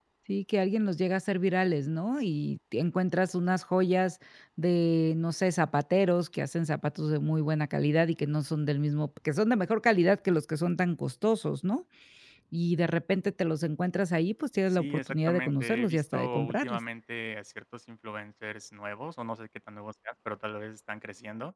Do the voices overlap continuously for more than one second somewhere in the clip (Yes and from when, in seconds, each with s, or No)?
Yes, from 14.7 s